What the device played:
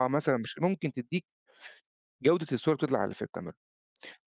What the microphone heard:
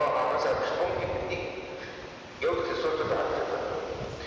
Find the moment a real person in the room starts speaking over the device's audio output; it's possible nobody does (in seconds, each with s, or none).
none